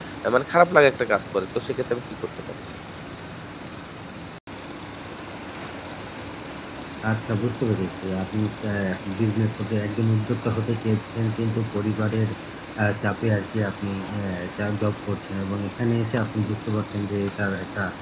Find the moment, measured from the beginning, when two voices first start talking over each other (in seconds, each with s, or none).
none